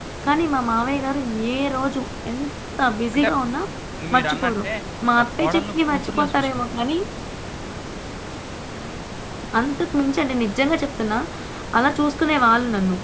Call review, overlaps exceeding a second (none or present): present